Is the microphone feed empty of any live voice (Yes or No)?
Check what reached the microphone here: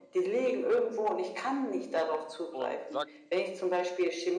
No